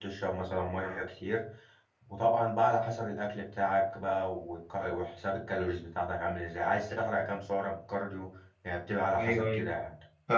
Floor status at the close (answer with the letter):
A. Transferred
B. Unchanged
A